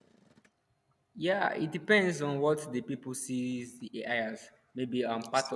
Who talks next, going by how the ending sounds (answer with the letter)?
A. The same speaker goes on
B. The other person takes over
A